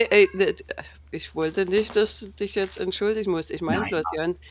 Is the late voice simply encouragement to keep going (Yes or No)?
Yes